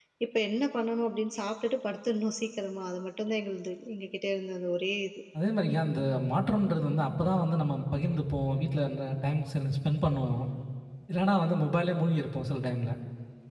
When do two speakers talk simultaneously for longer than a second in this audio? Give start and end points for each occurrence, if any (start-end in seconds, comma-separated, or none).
none